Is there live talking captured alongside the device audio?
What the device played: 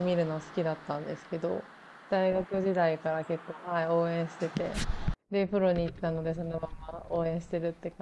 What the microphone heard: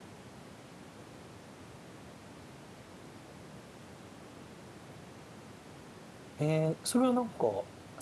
Yes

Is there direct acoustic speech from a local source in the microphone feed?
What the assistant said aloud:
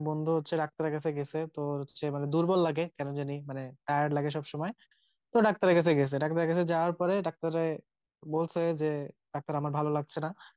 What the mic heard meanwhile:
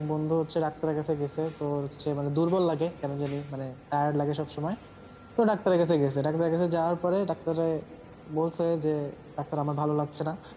No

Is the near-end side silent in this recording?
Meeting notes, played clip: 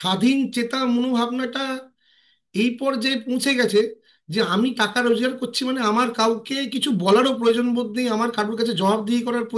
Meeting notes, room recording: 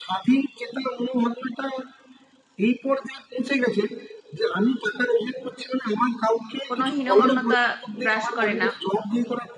No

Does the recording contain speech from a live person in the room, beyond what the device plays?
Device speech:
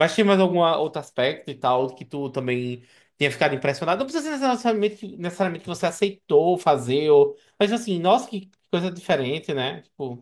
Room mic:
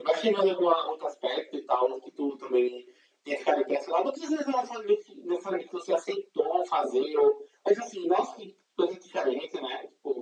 No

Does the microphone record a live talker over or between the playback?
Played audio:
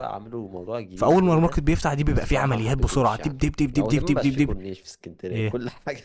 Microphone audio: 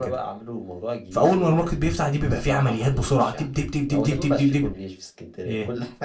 No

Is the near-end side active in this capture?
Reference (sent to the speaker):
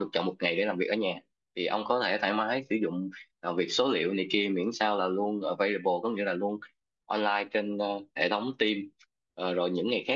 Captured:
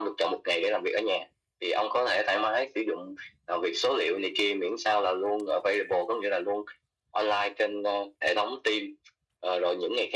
No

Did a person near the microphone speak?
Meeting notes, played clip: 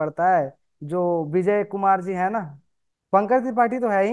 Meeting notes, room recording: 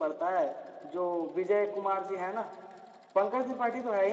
No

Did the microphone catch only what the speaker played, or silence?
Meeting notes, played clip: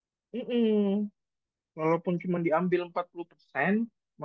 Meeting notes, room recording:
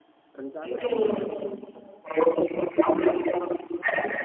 No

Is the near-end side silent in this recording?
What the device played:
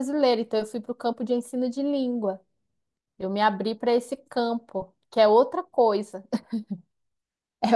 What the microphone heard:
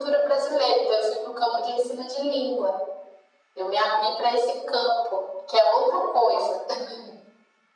Yes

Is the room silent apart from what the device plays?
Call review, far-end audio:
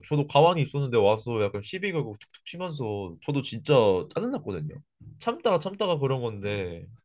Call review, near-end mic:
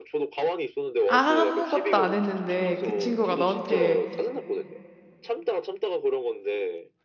No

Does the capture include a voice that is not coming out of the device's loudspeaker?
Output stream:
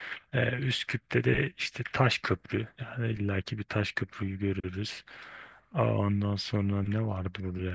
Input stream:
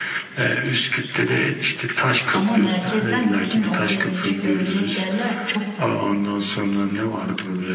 Yes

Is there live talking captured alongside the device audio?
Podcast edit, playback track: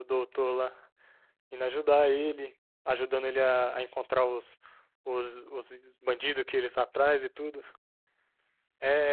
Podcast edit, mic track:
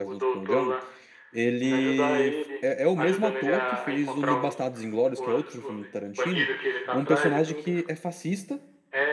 Yes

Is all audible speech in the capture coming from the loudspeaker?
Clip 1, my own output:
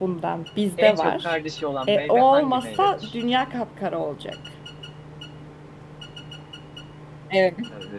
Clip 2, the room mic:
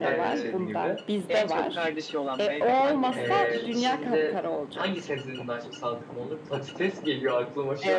No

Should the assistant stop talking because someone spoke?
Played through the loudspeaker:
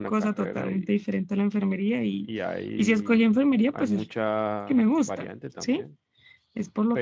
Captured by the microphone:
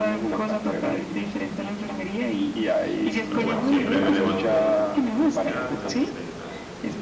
Yes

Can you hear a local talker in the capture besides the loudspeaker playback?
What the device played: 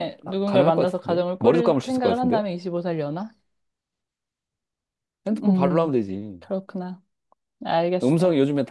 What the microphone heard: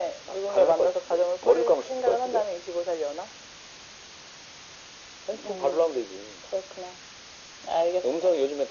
No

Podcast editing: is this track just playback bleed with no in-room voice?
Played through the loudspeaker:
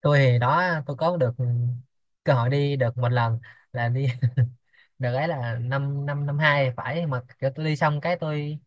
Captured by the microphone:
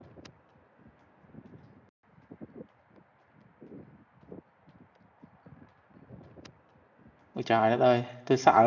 No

